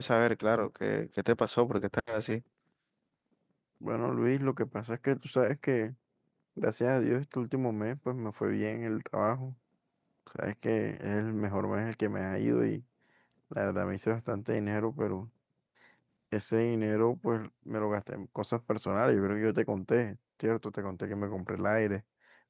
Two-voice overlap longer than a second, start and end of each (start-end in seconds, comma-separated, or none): none